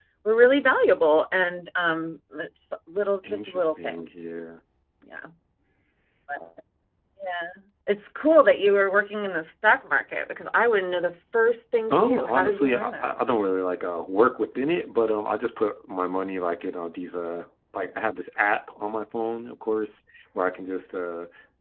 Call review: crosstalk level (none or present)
present